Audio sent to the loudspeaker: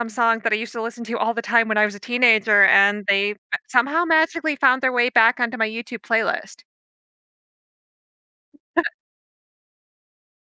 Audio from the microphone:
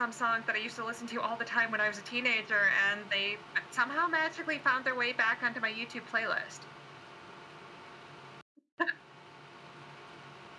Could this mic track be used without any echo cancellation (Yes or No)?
No